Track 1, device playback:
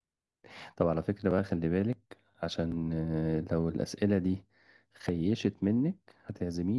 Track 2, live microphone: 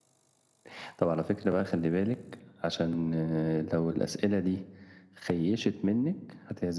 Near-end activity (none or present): none